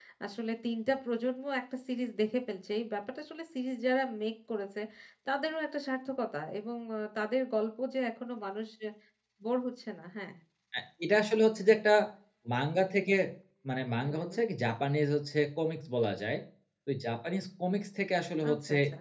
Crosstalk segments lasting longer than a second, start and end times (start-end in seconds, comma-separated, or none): none